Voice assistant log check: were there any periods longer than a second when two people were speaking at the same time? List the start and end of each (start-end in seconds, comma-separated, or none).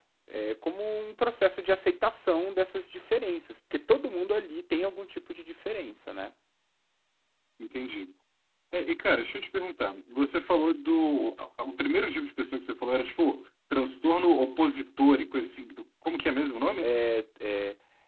none